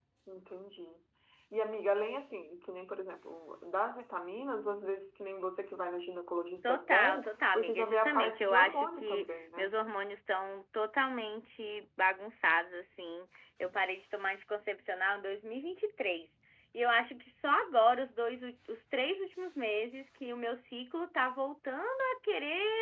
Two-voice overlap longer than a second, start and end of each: 6.6-9.7

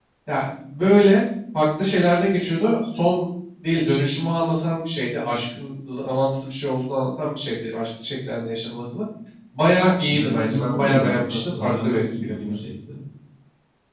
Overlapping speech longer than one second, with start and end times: 10.1-12.3

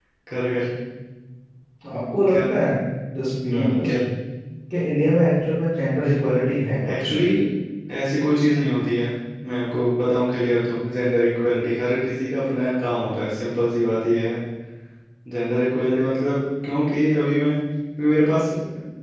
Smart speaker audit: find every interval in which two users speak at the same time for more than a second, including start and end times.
none

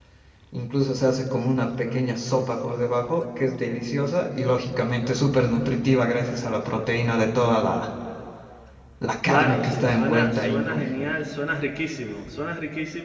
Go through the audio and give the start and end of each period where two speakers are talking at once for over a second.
9.2-10.8

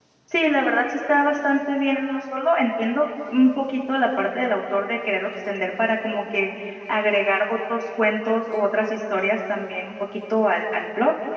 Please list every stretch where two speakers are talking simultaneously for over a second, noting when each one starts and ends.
none

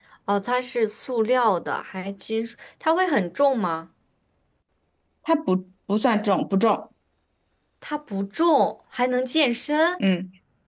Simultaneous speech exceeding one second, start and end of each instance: none

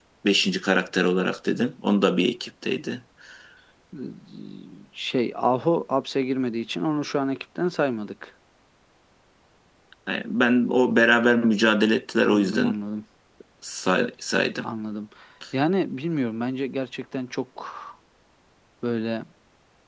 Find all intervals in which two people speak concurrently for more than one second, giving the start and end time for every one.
none

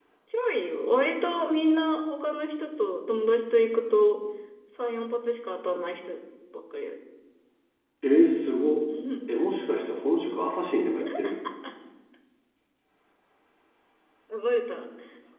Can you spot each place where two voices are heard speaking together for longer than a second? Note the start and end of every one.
none

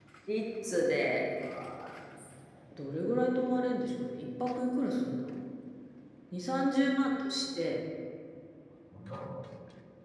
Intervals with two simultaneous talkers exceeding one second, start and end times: none

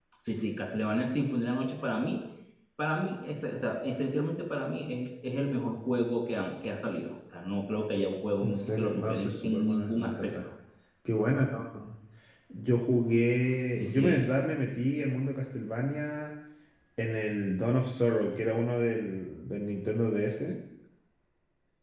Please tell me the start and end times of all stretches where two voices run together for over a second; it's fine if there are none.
8.4-10.4

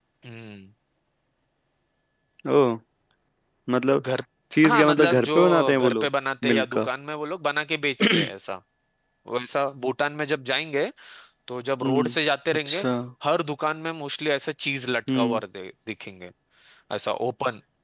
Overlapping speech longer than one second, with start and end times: 4.7-6.1

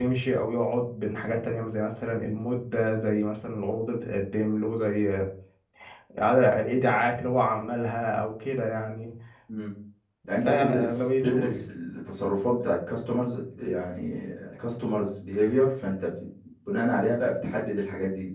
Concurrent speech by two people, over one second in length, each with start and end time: 10.4-11.6

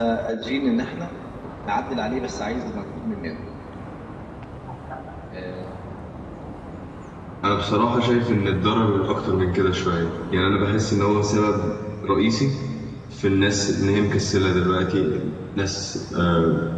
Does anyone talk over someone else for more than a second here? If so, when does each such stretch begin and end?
none

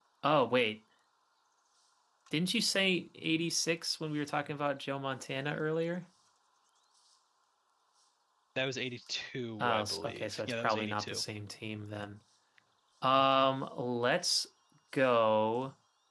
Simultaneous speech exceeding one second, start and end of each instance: 9.6-11.2

